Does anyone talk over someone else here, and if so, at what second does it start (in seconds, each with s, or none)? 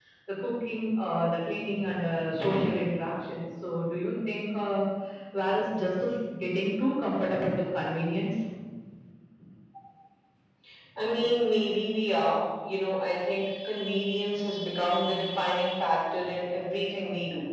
none